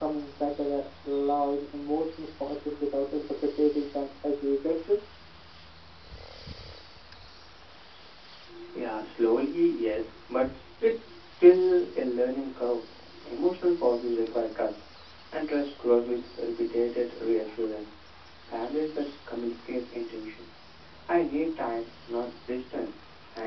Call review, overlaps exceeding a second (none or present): none